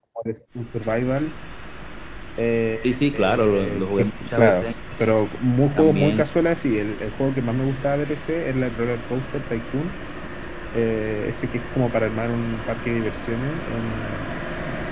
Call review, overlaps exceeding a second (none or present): present